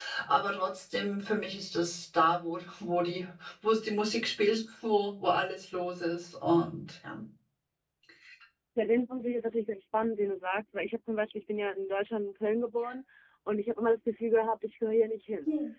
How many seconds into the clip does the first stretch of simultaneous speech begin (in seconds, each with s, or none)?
none